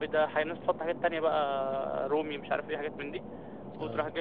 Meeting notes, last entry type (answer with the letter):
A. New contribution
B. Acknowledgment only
B